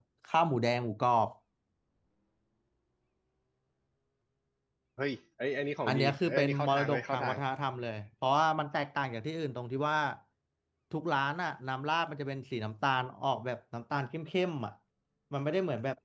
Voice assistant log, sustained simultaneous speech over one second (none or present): present